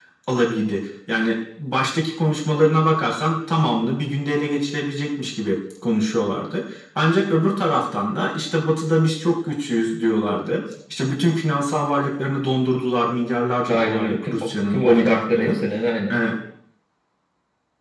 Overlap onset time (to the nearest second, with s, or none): 14 s